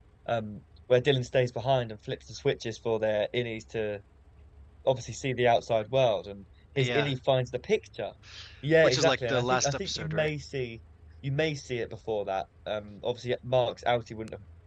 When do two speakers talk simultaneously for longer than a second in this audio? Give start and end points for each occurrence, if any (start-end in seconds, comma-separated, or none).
8.8-10.3